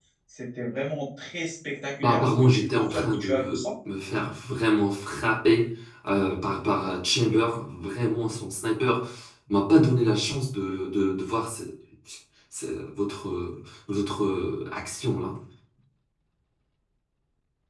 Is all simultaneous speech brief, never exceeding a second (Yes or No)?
No